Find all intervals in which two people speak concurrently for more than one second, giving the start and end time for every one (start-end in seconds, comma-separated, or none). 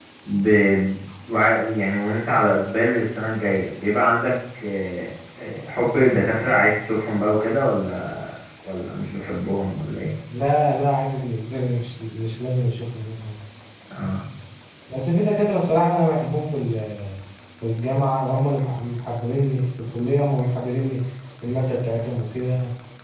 none